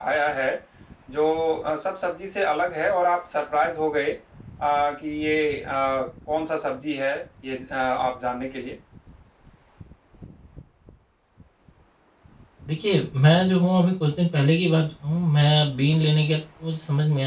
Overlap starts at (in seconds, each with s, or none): none